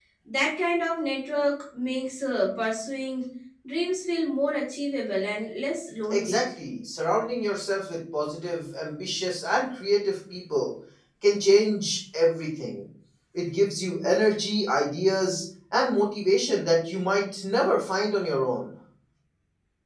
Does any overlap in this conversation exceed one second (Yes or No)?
No